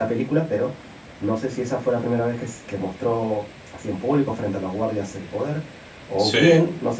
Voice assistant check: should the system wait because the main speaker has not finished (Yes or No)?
Yes